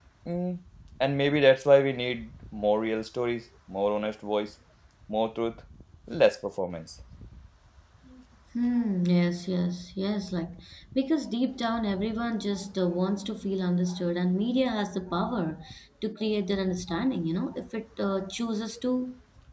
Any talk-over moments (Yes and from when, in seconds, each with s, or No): No